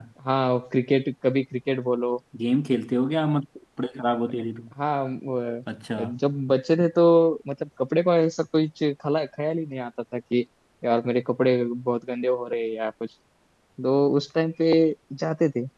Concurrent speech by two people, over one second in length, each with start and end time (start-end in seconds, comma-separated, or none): none